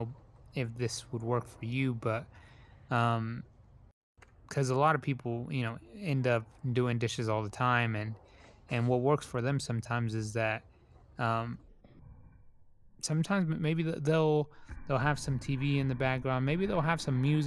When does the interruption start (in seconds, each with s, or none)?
none